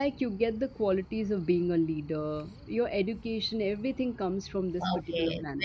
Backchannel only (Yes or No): No